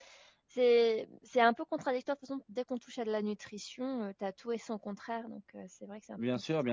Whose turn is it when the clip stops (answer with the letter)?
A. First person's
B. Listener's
B